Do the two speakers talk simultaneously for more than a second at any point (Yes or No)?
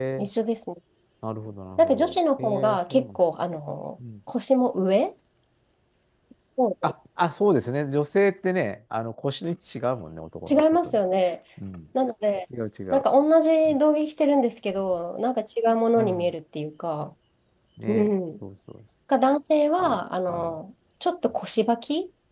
Yes